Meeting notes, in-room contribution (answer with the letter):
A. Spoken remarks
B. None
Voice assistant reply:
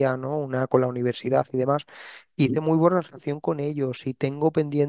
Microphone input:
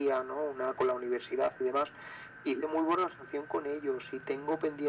B